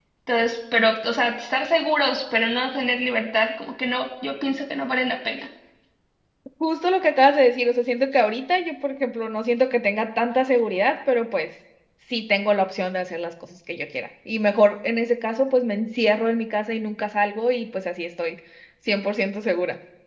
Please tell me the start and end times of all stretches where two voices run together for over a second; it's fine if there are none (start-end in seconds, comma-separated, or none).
none